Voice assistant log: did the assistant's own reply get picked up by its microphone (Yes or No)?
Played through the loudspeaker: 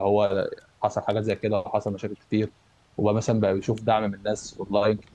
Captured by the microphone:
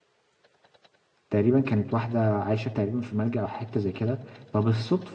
No